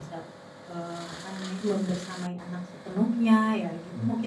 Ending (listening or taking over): taking over